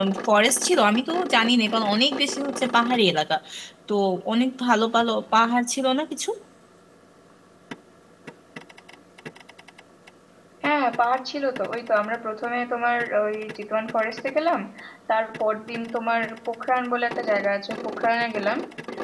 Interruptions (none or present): none